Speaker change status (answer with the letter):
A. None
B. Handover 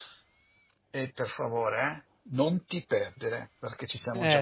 B